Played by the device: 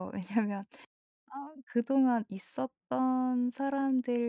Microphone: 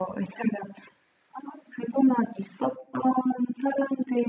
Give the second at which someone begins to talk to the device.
none

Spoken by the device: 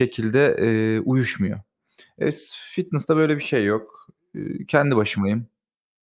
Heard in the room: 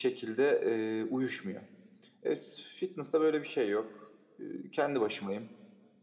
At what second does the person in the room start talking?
none

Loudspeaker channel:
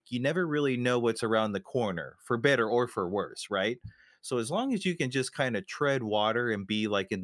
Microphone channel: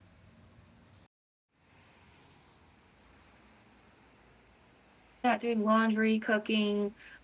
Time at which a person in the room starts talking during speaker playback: 5.2 s

